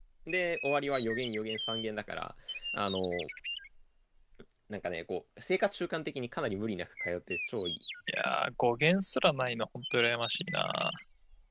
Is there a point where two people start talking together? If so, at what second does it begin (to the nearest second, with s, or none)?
none